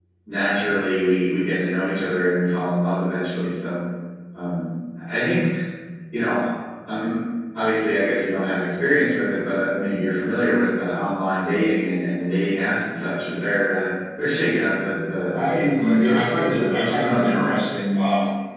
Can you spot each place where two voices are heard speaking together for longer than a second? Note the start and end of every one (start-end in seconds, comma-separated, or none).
15.3-17.6